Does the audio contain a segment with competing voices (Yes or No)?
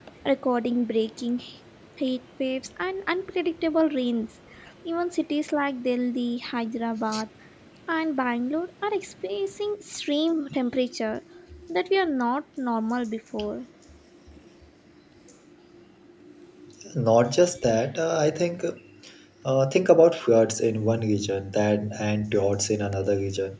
No